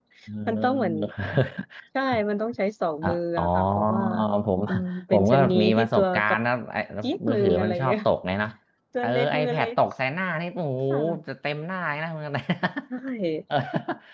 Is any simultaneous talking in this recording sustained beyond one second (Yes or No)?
Yes